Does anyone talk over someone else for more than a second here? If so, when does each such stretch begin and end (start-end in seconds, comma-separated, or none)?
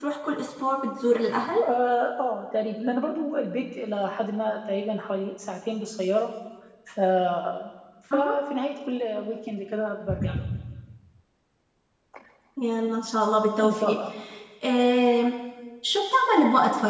none